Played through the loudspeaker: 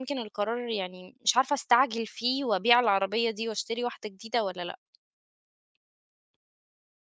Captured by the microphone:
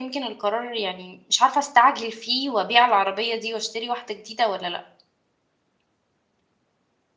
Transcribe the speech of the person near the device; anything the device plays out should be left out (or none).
none